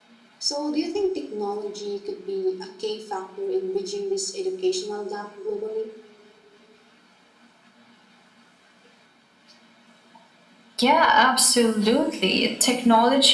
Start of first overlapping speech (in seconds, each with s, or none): none